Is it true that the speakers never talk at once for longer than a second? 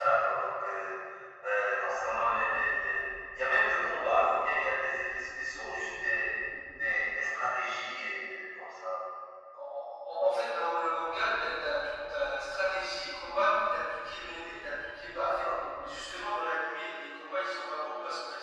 Yes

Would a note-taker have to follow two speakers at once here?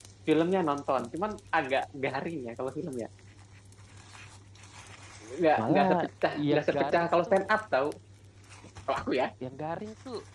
Yes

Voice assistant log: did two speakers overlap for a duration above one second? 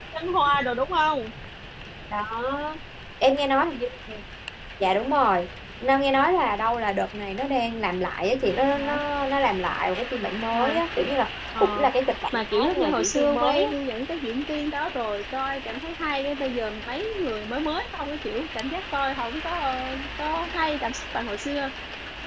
Yes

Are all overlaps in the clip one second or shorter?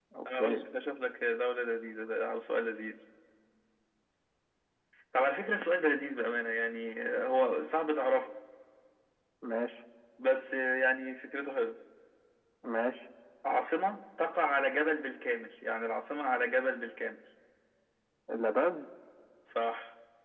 Yes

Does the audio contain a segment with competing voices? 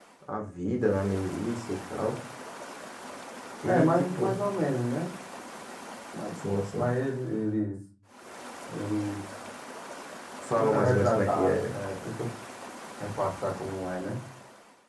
Yes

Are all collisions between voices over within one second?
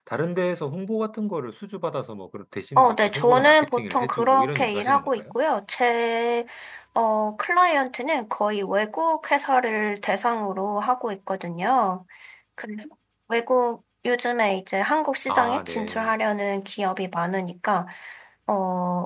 No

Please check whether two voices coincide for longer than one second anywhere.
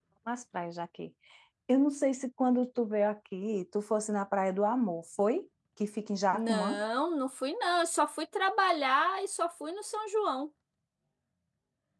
No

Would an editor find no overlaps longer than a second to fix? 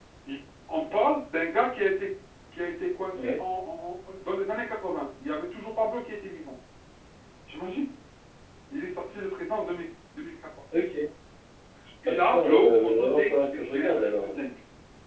No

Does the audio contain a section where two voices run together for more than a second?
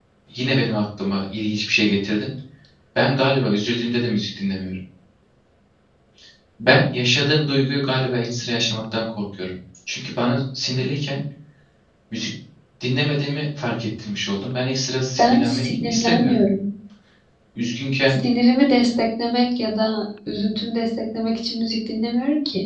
Yes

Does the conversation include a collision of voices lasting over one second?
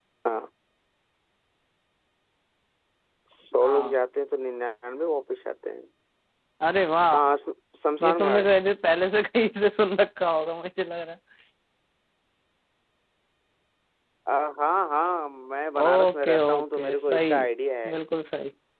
Yes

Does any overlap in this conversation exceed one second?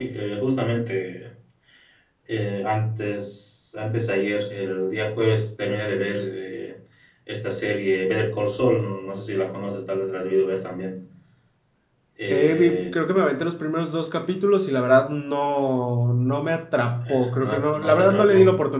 Yes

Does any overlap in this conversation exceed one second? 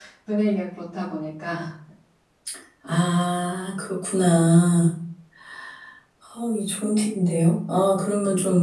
No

